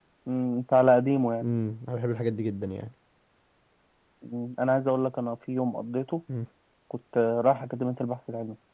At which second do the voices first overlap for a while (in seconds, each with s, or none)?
none